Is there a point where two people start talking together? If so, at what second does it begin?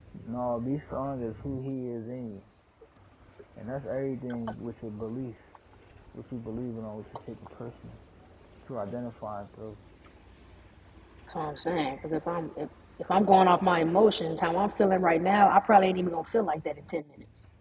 none

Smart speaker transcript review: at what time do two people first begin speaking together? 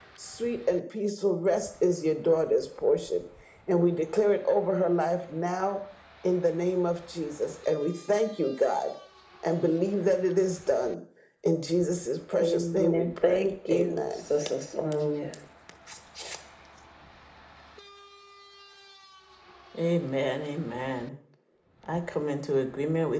12.3 s

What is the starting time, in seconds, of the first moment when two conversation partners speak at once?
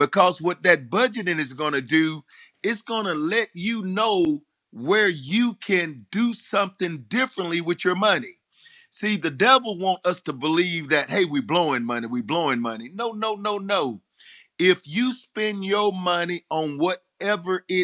none

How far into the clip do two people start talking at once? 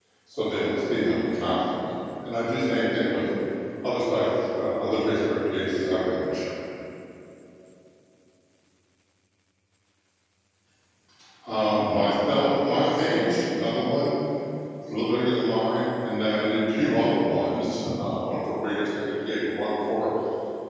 11.5 s

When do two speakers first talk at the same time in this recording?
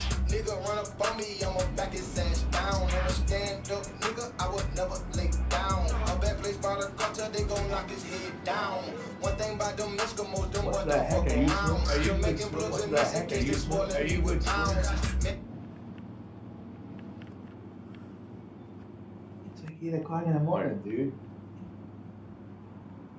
10.6 s

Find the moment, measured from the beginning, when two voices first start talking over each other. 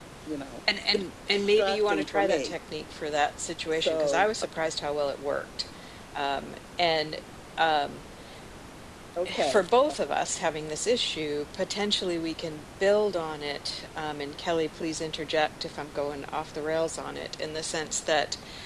1.3 s

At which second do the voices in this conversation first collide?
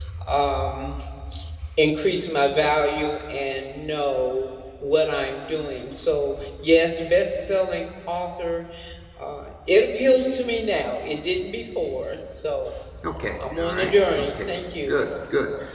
13.6 s

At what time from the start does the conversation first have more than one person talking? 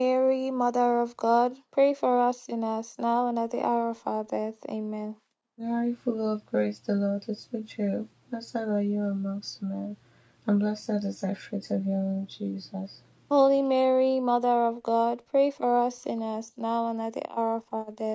none

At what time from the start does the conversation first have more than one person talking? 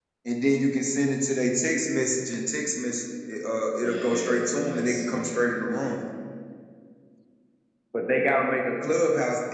3.8 s

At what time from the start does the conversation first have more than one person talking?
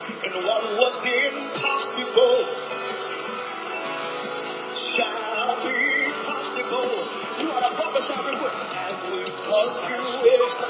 none

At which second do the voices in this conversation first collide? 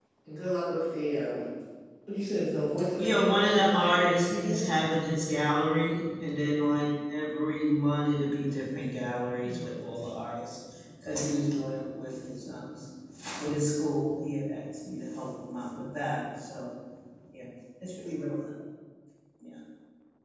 3.0 s

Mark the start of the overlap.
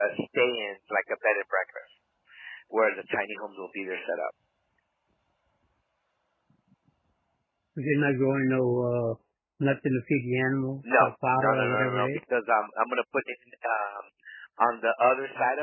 10.8 s

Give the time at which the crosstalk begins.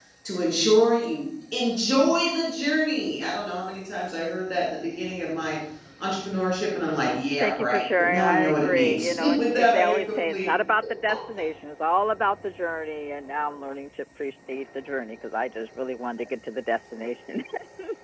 7.4 s

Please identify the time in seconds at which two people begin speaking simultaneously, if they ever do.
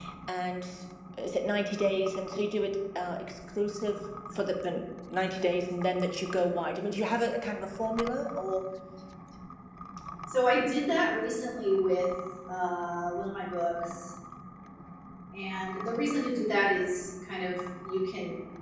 none

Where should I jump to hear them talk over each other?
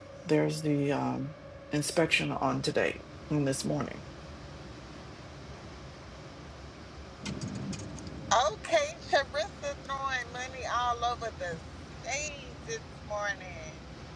none

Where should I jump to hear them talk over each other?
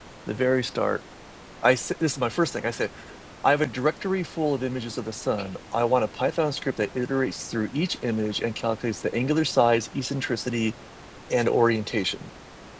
none

